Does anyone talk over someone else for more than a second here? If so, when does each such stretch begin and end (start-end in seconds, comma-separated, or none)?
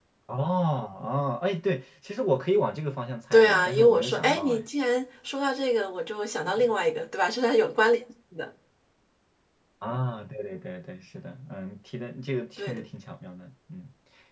3.3-4.6